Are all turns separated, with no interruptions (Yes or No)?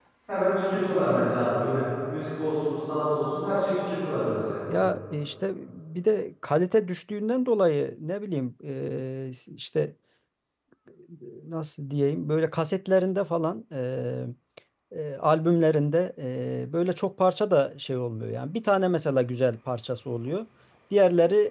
Yes